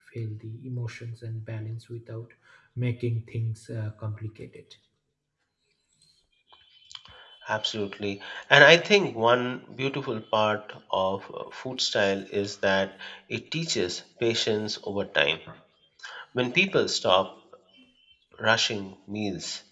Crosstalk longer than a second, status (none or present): none